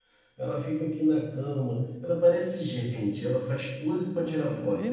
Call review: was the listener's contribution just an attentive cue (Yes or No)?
No